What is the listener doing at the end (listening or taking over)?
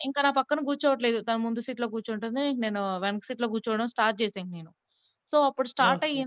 listening